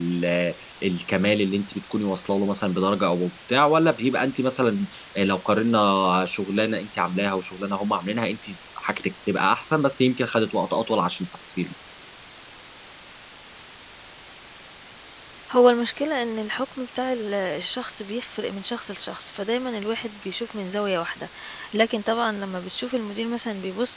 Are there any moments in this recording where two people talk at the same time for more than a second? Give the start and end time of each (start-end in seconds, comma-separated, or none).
none